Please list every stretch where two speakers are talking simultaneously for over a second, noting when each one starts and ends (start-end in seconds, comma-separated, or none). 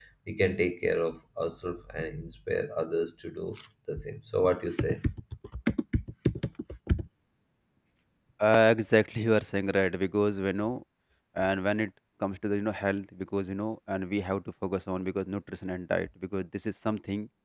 none